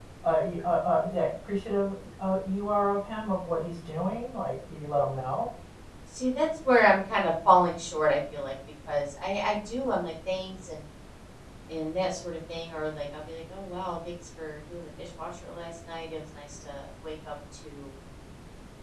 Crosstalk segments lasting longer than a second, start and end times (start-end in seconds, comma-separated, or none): none